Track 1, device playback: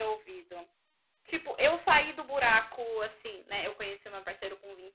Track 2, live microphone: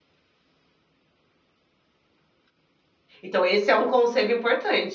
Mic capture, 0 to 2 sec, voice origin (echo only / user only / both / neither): neither